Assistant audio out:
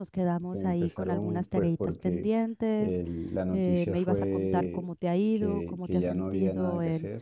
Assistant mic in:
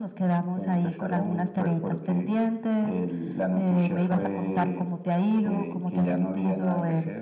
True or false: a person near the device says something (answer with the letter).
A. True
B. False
B